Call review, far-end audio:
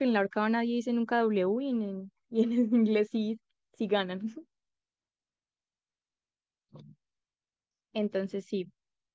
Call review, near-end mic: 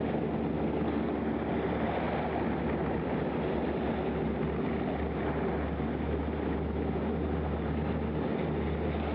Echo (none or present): none